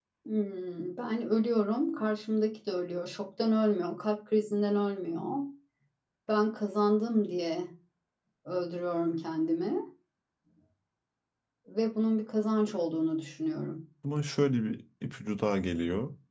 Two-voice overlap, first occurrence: none

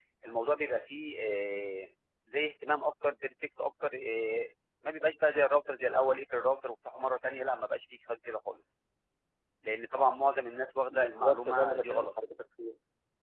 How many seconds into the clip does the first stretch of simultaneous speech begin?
10.9 s

